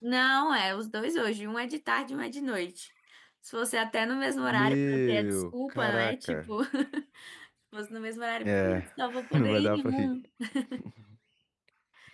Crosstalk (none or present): present